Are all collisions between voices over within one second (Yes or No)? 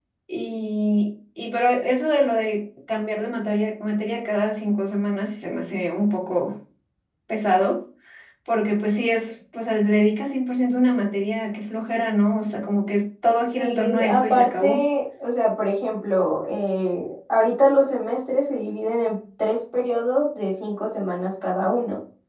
No